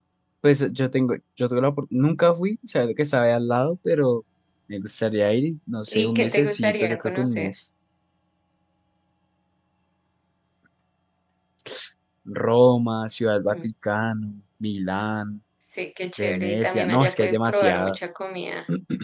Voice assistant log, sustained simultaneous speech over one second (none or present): present